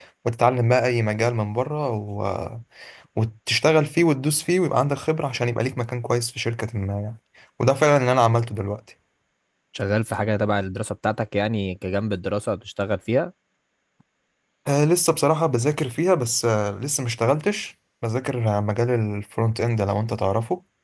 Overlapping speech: No

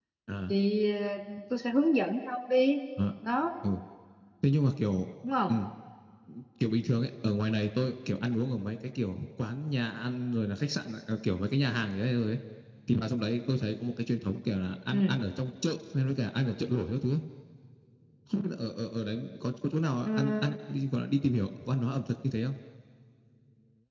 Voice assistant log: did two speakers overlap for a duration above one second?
No

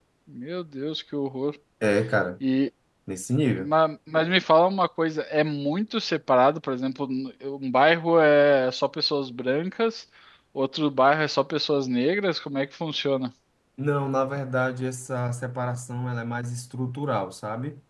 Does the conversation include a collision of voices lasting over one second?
No

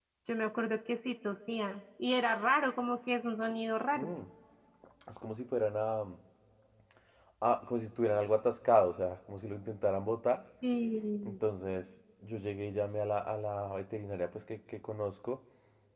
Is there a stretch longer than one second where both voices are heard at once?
No

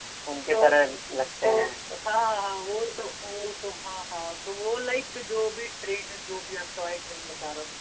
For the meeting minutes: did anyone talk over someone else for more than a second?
No

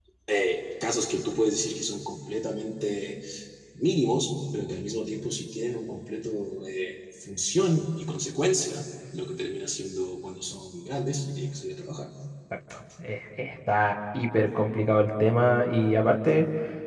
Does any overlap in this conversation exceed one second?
No

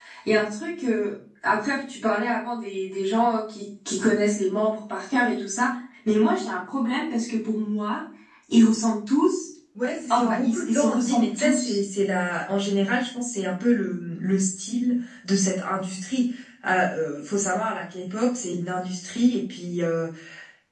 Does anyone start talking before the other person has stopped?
Yes, from 10.1 s

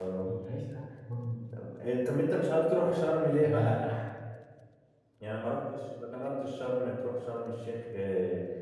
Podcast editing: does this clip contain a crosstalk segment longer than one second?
No

